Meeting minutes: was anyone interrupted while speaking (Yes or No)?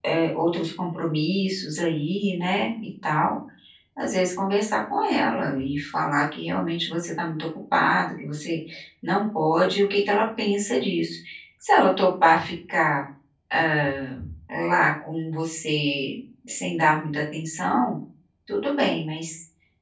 No